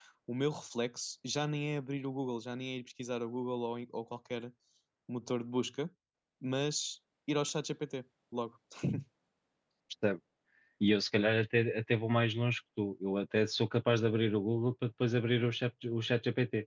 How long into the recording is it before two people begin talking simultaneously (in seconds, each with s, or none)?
none